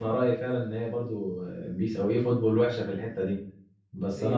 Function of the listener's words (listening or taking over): listening